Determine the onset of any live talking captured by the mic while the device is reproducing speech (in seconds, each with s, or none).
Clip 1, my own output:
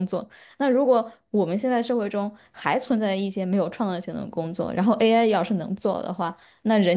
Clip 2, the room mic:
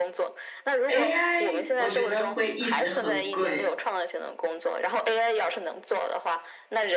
0.9 s